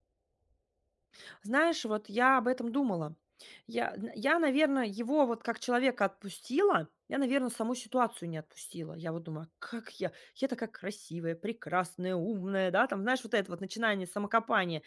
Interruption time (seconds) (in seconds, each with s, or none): none